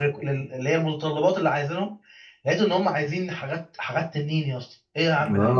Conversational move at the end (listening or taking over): taking over